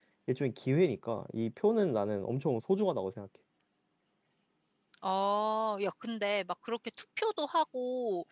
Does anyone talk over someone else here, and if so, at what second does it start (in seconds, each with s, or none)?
none